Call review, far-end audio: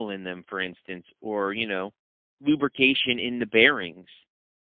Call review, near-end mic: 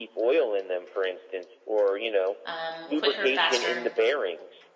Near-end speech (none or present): present